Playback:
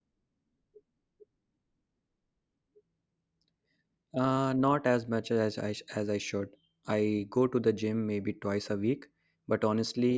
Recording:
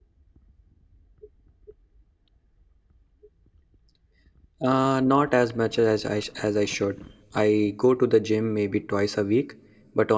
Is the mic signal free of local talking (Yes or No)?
Yes